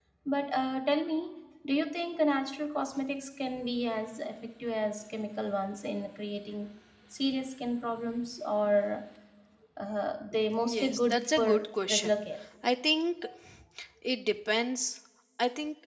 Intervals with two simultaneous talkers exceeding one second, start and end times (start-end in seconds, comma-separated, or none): 10.6-12.1